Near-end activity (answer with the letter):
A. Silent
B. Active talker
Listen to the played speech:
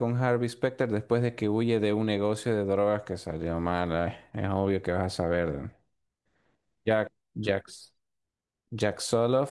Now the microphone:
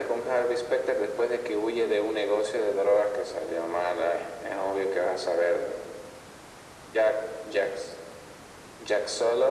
A